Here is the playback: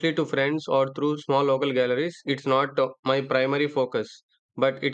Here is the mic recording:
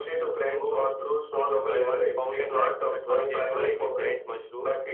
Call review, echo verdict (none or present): present